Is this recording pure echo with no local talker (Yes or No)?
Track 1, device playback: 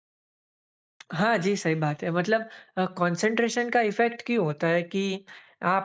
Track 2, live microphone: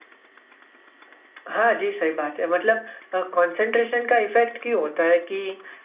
Yes